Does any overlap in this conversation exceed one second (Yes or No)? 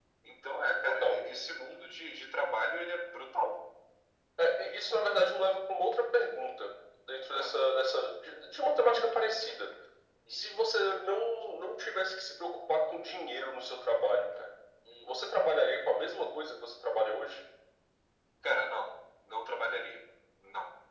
No